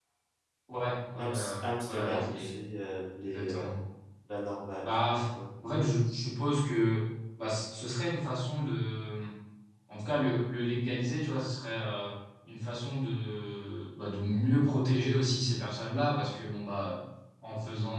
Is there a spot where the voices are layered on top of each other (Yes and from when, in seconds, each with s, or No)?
Yes, from 1.2 s